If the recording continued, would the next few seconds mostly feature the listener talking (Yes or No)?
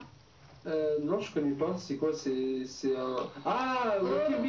No